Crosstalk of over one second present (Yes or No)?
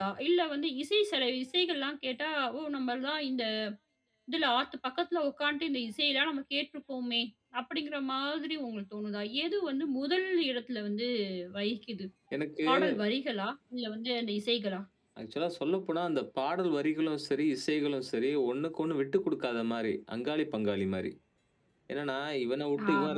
No